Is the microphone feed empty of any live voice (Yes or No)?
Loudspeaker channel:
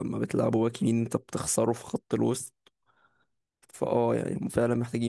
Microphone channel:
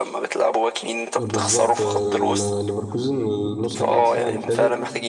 No